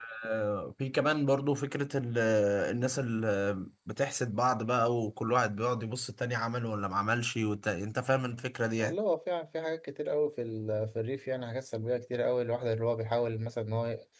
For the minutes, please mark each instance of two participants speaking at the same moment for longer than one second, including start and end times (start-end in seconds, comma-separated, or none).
none